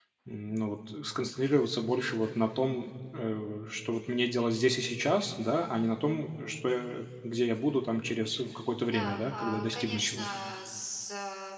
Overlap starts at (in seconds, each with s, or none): 8.8 s